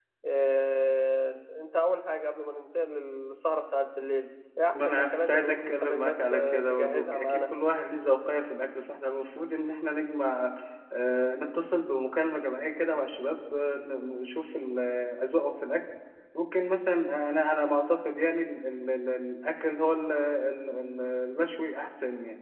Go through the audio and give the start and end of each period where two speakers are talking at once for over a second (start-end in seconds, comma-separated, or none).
4.7-7.4